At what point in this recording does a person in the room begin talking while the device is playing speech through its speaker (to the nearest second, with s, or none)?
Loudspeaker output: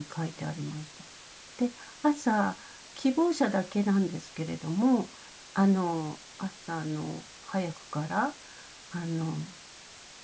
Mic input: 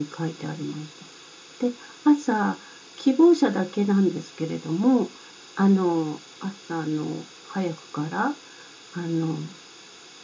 none